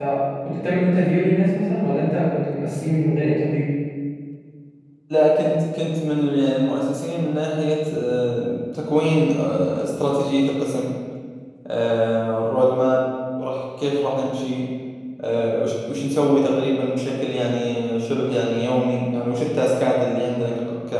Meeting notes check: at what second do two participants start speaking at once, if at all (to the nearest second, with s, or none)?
none